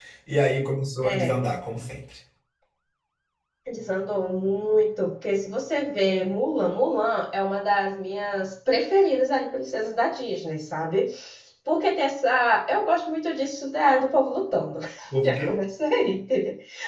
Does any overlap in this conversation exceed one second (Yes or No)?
No